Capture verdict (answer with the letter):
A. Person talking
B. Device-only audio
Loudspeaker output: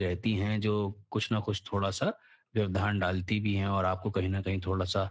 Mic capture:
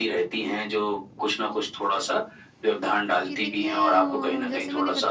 A